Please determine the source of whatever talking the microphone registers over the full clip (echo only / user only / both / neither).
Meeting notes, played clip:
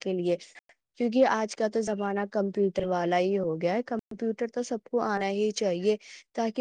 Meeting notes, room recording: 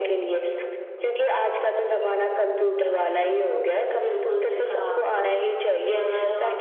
both